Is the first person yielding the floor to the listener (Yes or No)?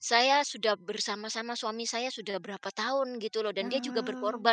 No